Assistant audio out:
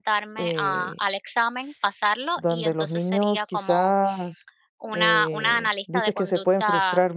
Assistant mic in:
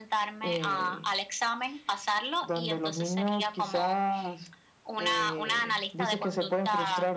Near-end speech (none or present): none